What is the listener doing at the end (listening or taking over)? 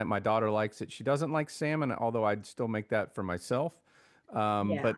listening